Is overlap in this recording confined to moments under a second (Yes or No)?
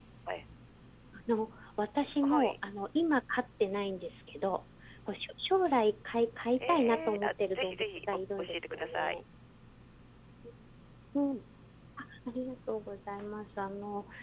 No